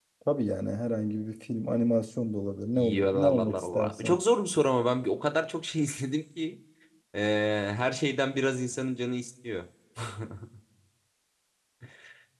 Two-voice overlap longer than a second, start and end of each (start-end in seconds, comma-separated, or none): 2.8-4.2